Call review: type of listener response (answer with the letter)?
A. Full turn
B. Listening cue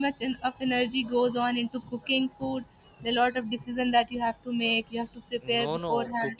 A